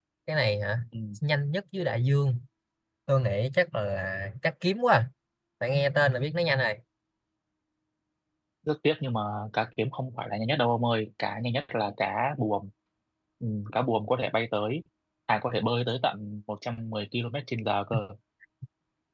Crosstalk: none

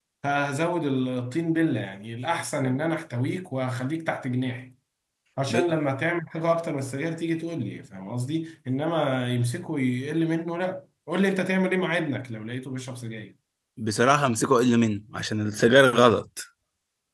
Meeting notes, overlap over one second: none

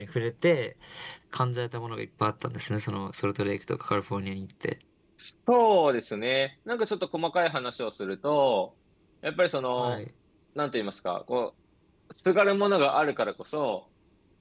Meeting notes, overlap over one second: none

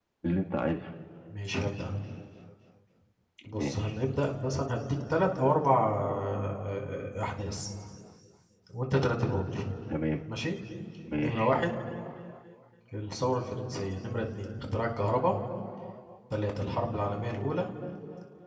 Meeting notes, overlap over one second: none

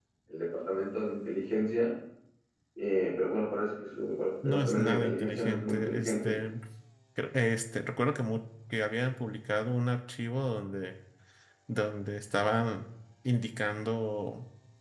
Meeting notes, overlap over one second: present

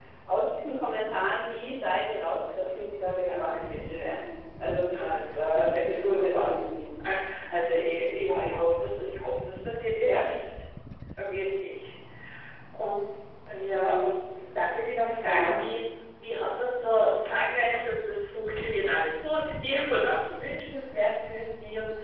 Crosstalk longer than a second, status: present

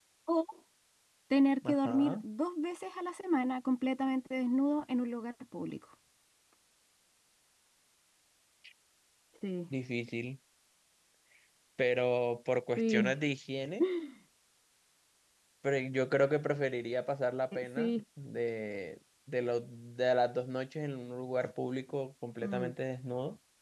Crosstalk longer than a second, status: none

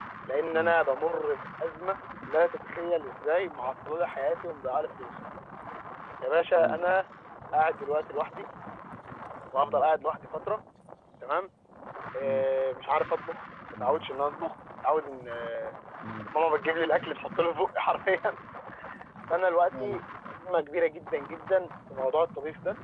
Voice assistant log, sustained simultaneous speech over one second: none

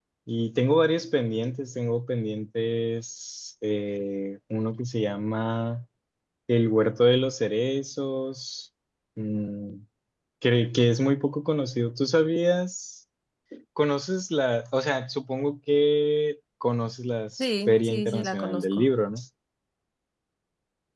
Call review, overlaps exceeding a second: present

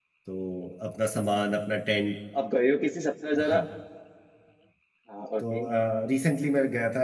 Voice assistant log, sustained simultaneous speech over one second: none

